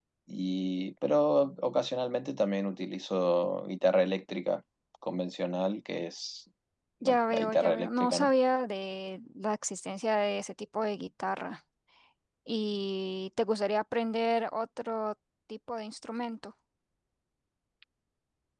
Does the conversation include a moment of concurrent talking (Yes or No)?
Yes